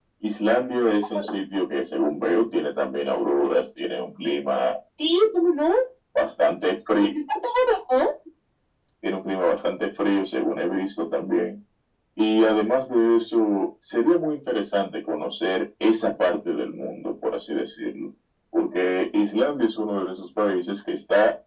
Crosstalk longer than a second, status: none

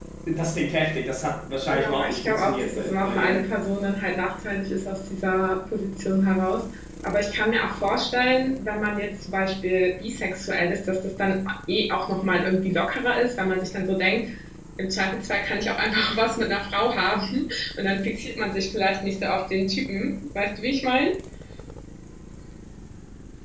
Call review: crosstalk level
present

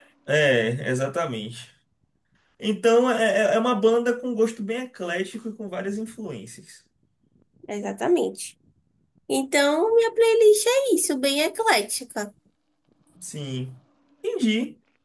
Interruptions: none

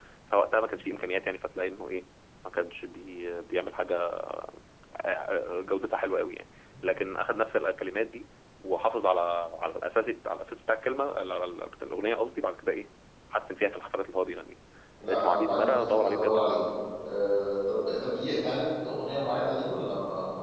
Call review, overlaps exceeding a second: present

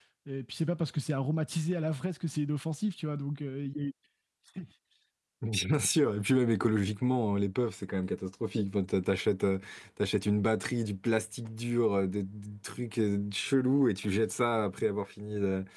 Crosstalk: none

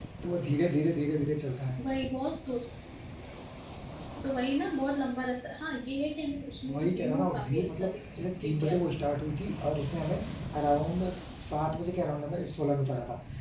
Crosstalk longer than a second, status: present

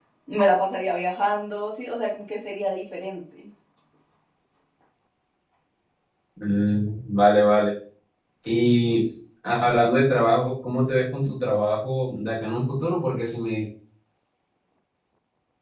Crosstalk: none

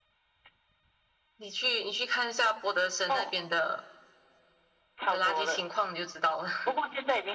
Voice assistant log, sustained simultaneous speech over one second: none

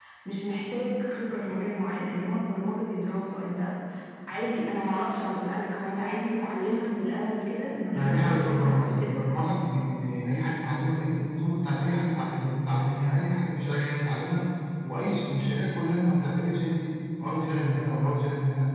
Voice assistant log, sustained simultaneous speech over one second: present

